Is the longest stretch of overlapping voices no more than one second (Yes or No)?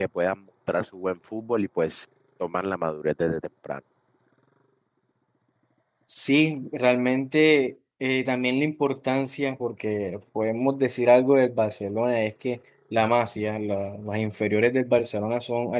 Yes